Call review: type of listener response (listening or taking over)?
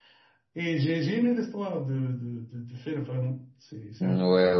taking over